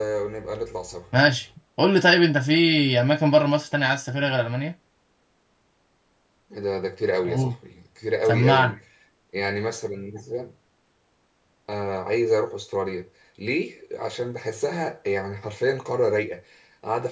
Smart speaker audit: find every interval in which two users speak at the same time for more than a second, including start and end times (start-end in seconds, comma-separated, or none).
none